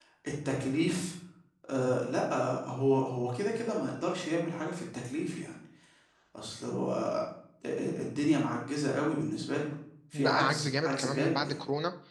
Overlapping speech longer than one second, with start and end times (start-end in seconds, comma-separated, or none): 10.1-11.6